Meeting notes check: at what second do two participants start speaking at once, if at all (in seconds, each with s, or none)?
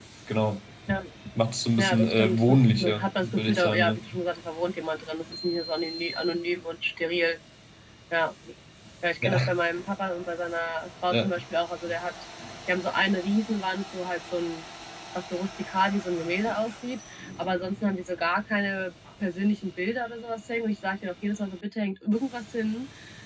1.8 s